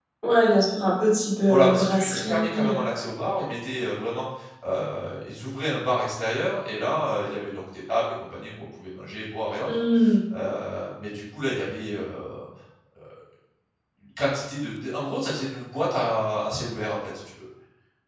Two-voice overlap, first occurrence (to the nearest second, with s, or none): 1 s